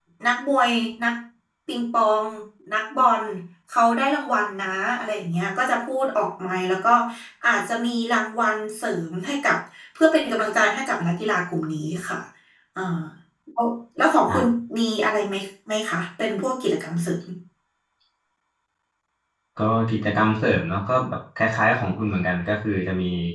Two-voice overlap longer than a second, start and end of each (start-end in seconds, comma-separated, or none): none